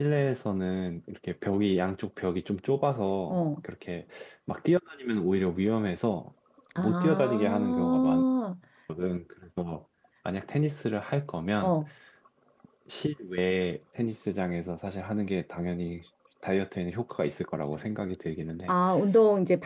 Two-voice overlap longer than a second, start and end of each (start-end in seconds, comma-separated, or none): 6.8-8.2